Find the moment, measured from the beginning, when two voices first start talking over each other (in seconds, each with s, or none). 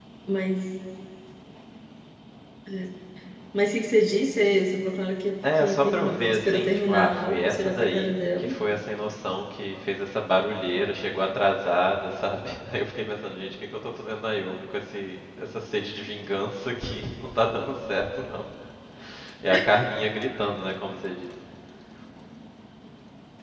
5.4 s